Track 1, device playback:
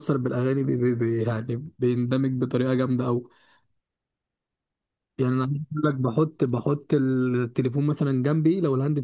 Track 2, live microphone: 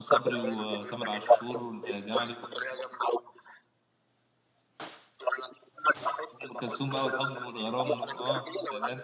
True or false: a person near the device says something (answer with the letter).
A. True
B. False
A